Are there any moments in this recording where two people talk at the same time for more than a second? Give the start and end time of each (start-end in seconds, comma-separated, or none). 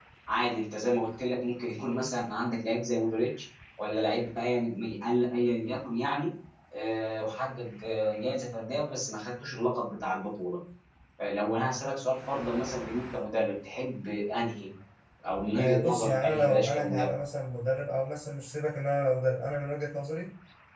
15.6-17.1